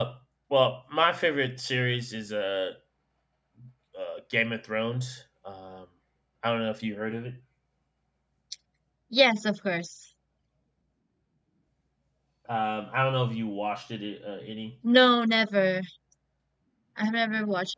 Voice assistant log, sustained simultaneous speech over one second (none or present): none